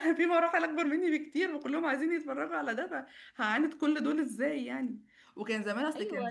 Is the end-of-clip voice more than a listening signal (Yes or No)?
No